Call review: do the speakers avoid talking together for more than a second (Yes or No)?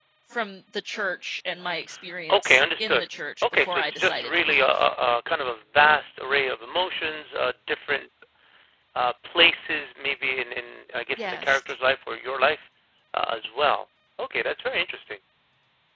No